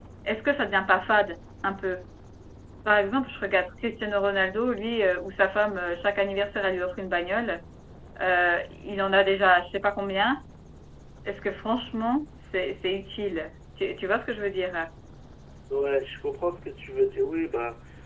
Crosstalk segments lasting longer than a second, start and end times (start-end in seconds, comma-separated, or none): none